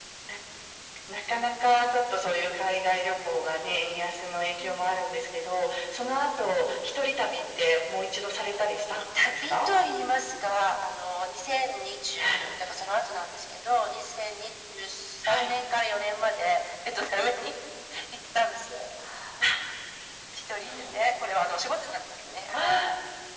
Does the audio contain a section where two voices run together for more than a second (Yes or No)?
No